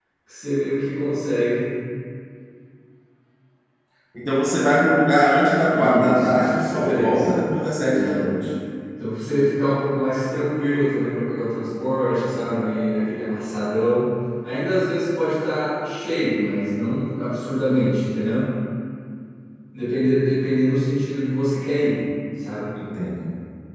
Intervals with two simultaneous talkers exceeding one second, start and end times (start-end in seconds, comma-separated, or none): 5.7-7.4